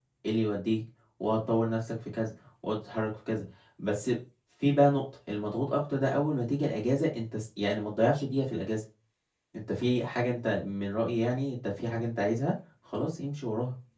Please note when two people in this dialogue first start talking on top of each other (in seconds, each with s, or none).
none